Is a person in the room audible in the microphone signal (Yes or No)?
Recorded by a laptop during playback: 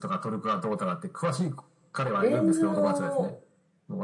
Yes